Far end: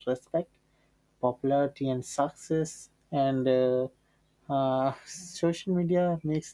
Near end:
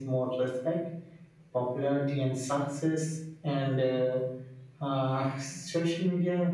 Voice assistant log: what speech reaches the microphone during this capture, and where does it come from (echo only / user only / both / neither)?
echo only